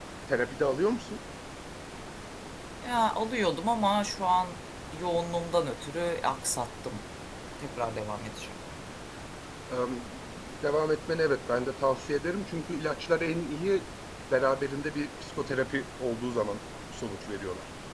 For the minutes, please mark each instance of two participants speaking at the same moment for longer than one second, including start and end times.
none

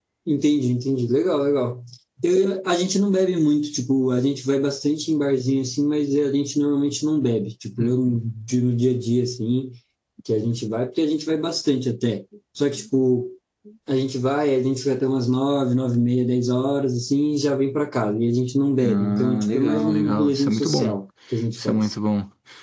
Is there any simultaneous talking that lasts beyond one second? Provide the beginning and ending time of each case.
18.8-21.0

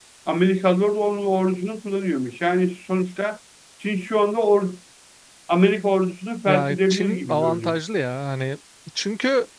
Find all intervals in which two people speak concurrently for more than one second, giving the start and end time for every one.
6.5-7.7

